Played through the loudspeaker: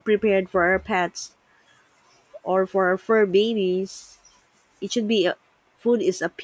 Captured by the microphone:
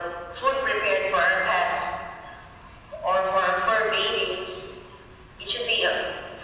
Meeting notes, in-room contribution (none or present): none